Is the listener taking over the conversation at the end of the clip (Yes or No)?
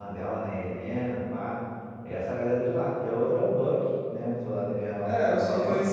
Yes